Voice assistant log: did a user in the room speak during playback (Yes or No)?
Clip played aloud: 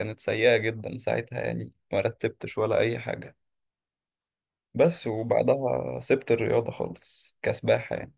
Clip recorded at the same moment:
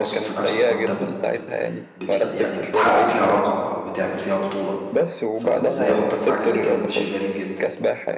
Yes